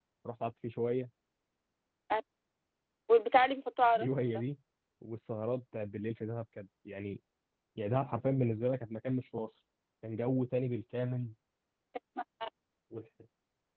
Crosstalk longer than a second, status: none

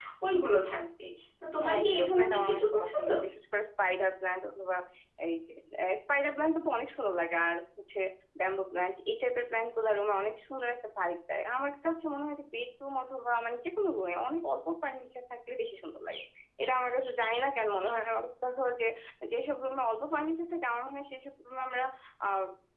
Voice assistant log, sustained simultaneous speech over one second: present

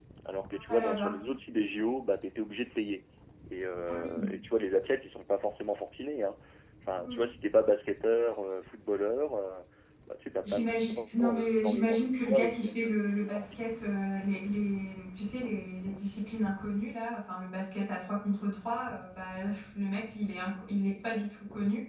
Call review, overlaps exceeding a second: present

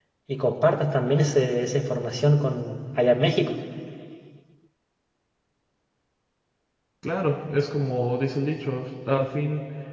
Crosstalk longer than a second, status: none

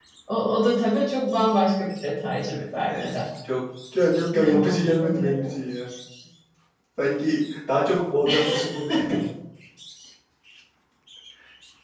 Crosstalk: present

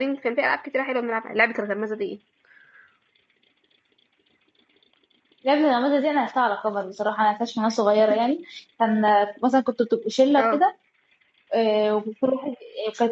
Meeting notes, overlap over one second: none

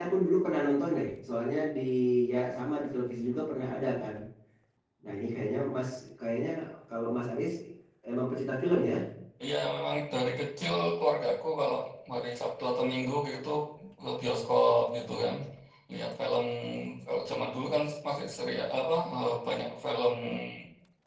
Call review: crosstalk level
none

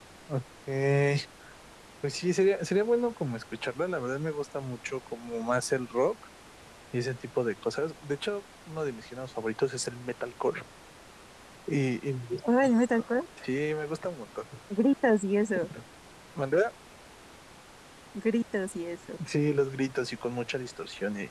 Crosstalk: none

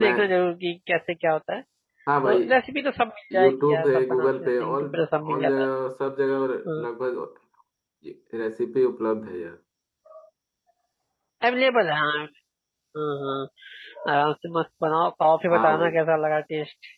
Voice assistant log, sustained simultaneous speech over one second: present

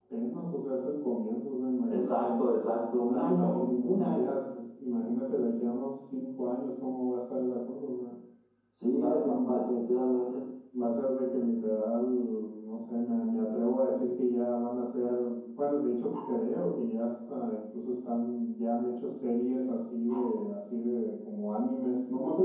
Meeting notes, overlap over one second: present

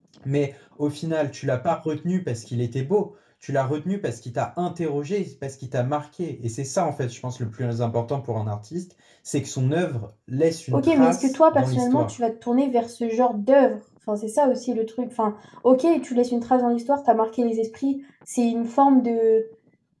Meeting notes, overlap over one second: present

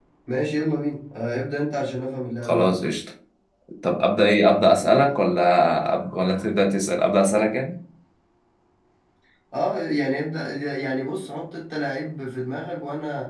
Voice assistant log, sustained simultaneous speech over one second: none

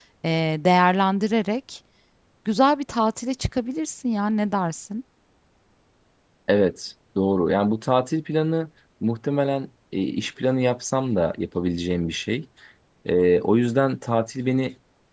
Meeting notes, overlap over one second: none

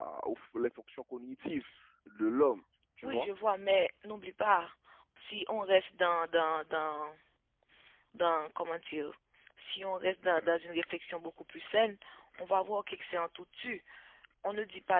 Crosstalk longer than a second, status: none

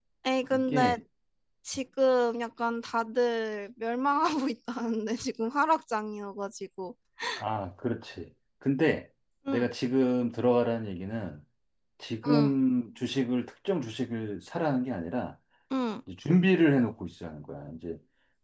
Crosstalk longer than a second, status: none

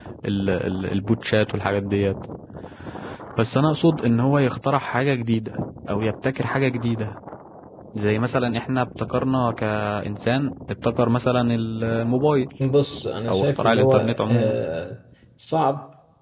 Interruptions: present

